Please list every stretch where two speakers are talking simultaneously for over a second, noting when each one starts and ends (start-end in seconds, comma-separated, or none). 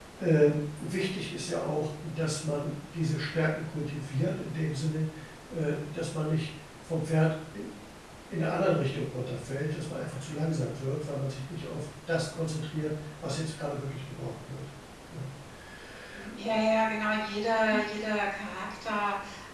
none